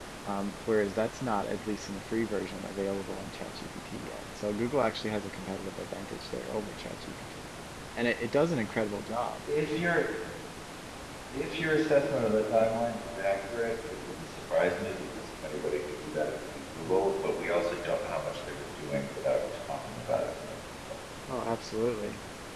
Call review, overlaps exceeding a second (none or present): none